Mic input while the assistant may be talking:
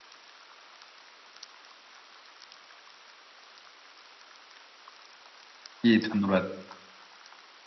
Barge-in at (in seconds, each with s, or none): 5.8 s